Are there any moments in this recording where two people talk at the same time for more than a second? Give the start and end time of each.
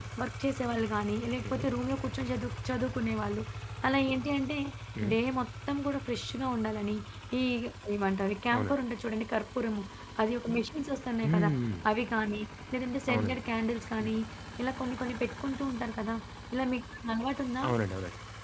none

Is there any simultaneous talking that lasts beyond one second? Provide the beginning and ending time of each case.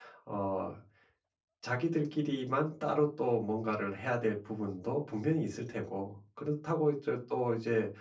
none

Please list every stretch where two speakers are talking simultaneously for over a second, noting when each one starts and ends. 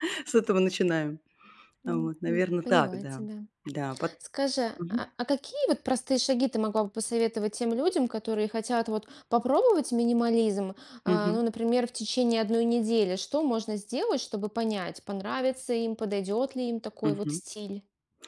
1.9-3.2

